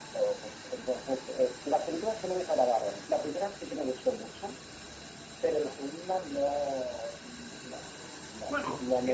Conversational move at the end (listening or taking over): taking over